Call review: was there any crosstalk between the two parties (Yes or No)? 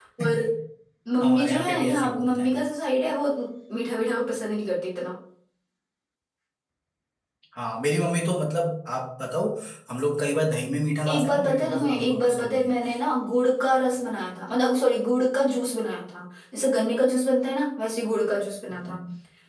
Yes